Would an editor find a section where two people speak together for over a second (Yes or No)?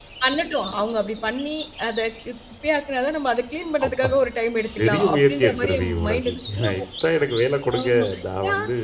Yes